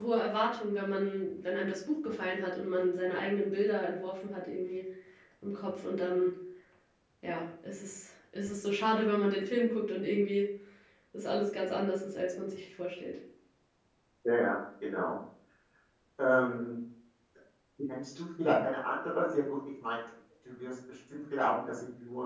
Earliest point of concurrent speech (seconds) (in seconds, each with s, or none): none